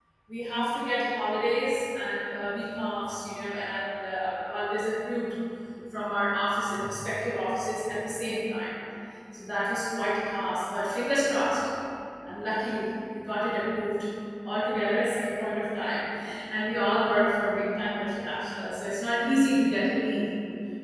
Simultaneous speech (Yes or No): No